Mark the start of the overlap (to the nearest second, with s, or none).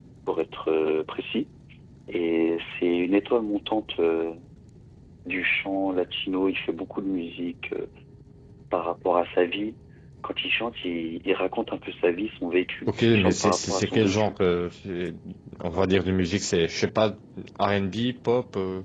13 s